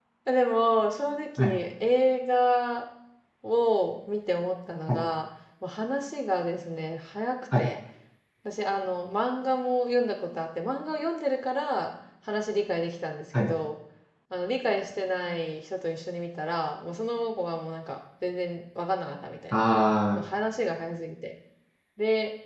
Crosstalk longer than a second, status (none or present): none